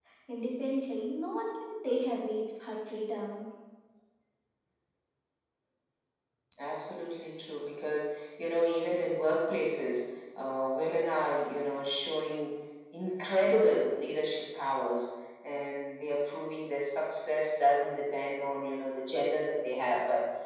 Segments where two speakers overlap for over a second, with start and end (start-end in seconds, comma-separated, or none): none